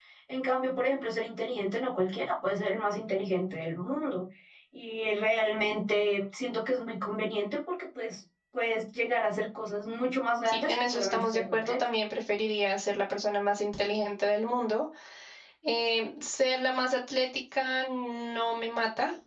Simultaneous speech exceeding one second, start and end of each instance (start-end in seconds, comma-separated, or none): 10.4-11.9